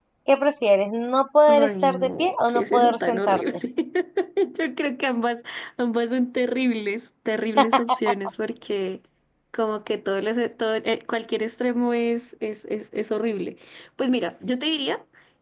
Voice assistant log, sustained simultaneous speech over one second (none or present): present